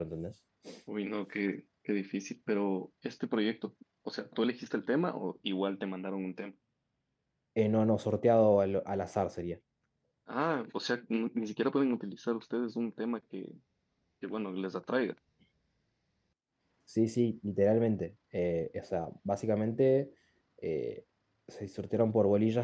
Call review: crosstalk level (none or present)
none